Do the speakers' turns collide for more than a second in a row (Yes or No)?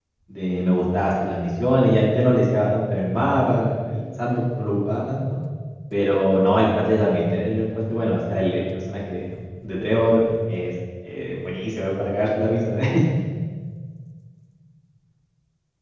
No